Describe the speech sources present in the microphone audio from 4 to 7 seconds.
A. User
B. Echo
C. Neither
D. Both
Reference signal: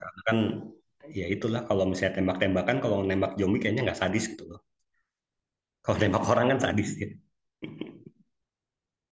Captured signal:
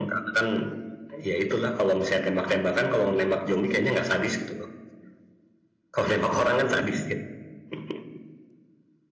B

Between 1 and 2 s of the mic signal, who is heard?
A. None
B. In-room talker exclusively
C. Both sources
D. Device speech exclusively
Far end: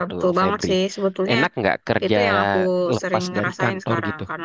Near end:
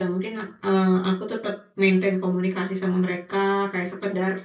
B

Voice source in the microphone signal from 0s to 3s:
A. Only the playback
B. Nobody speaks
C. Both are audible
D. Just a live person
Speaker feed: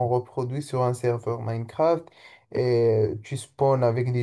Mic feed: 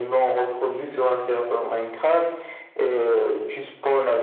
A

